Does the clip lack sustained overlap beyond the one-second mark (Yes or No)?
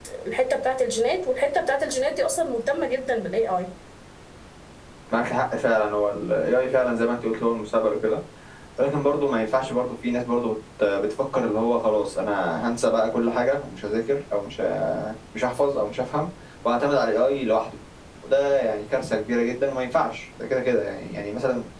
Yes